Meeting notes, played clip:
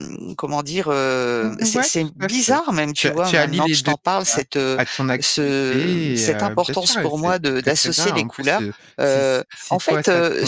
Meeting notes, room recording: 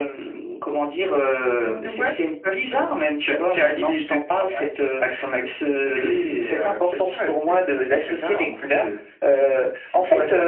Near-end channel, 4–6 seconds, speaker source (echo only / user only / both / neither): echo only